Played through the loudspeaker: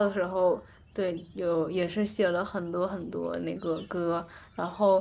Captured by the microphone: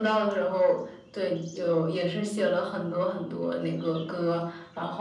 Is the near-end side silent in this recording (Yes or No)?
Yes